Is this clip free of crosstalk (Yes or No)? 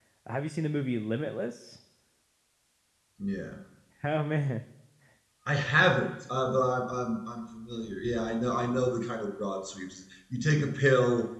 Yes